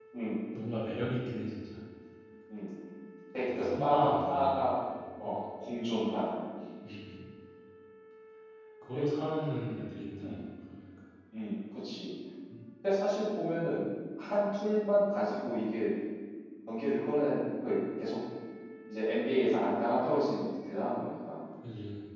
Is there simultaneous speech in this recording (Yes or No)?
Yes